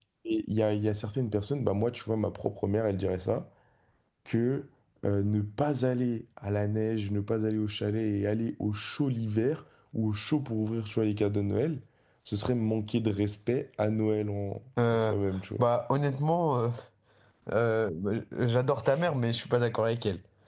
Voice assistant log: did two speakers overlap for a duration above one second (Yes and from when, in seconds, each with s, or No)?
No